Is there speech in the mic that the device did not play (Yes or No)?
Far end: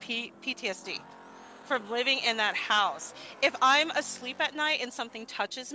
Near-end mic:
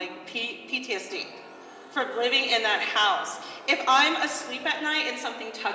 No